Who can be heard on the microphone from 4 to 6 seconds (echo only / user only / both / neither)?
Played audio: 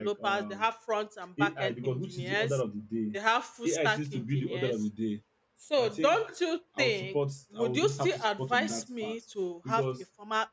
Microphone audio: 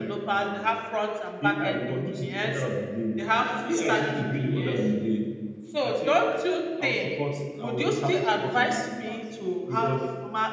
echo only